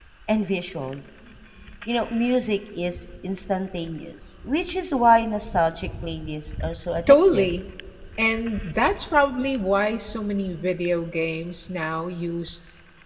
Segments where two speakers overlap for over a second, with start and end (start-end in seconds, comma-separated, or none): none